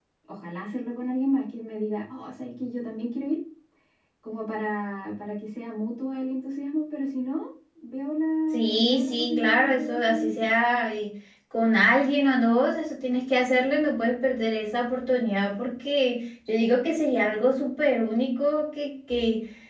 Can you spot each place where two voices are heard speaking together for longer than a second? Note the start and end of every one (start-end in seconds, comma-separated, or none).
8.5-10.5